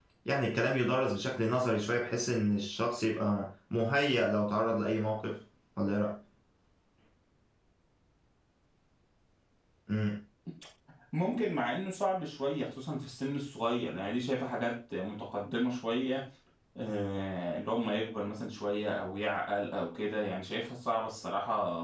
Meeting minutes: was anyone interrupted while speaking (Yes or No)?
No